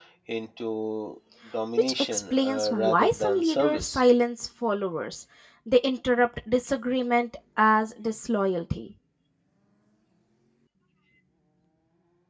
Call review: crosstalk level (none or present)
present